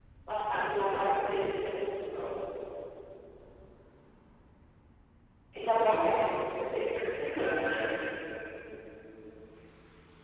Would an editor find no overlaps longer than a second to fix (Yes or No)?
No